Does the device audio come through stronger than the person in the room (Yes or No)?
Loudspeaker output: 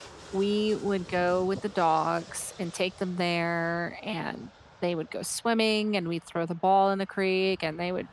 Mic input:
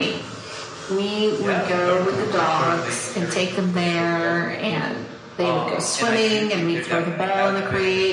Yes